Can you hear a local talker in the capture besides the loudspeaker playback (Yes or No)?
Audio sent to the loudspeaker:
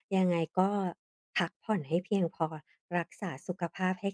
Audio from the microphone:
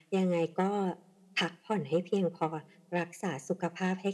No